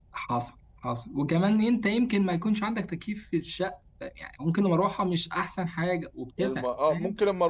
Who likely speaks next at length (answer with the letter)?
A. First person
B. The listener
B